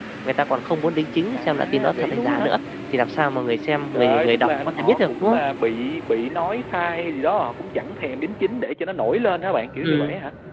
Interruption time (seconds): 1.3 s

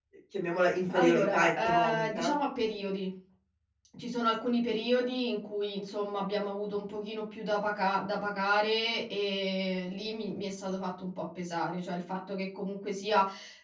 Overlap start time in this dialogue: 0.9 s

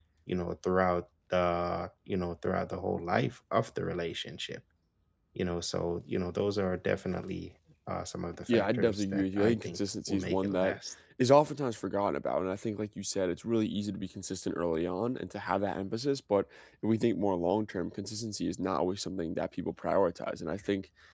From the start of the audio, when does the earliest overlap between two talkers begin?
8.5 s

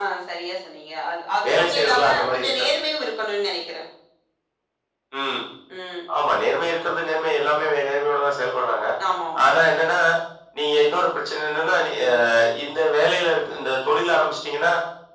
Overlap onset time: 1.4 s

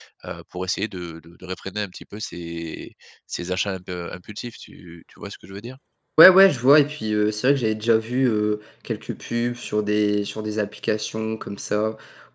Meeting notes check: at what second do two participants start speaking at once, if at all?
none

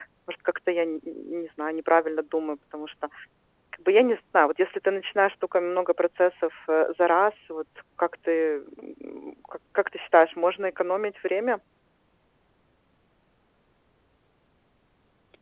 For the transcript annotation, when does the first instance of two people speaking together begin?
none

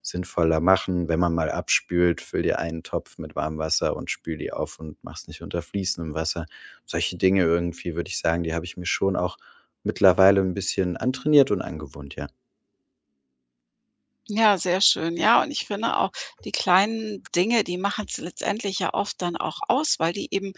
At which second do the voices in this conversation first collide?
none

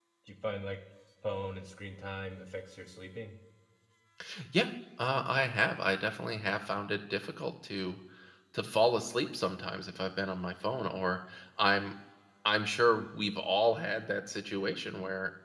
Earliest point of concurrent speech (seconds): none

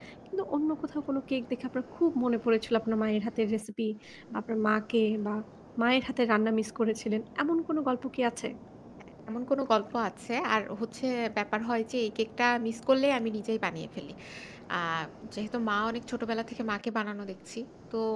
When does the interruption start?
none

